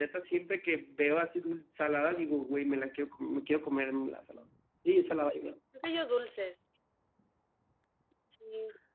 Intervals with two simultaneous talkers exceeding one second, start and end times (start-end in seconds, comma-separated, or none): none